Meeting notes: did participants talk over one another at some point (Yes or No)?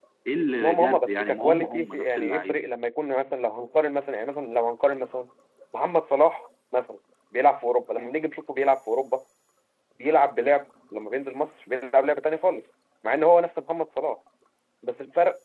Yes